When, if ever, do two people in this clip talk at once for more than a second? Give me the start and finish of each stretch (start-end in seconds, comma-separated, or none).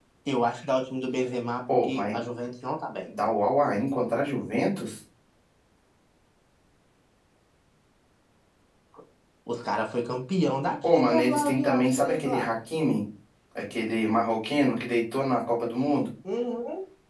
10.8-12.5